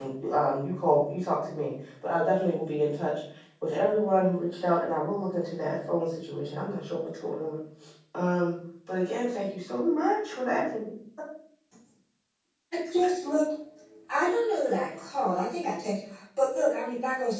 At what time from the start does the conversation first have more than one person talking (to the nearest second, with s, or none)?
none